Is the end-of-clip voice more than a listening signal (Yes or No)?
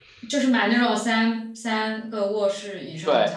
Yes